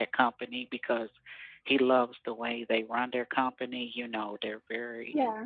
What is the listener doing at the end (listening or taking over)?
listening